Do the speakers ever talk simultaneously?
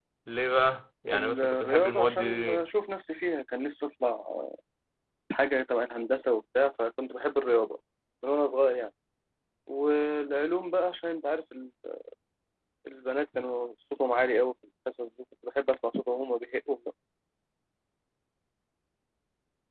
Yes, from 1.1 s

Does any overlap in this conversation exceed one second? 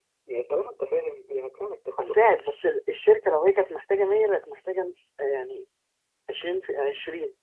No

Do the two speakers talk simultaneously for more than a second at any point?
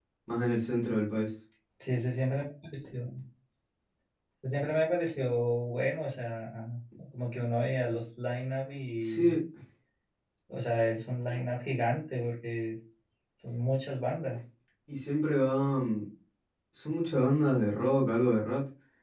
No

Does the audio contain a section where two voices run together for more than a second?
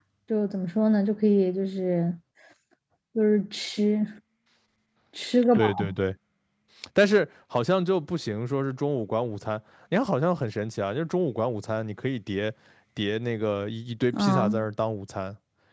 No

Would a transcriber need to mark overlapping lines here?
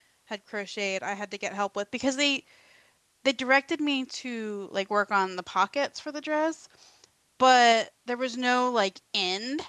No

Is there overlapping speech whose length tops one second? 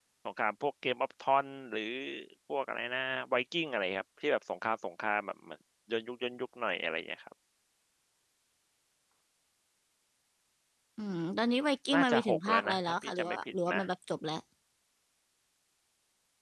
Yes, from 11.9 s

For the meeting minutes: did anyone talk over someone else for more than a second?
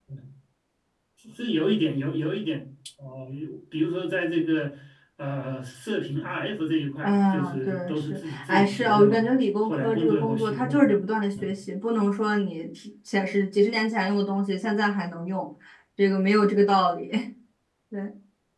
Yes, from 7.0 s

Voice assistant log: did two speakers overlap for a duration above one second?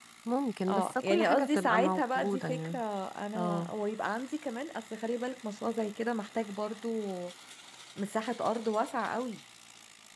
Yes, from 0.7 s

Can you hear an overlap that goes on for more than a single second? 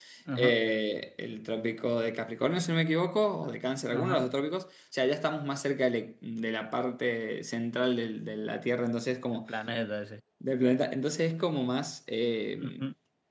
No

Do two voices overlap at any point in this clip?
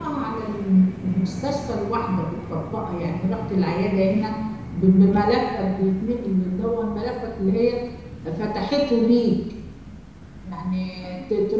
No

